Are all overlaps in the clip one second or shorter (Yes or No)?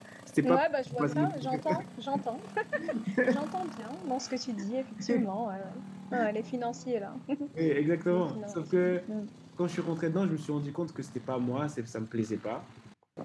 No